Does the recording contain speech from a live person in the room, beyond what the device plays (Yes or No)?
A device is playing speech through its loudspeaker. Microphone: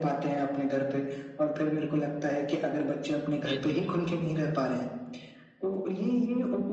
Yes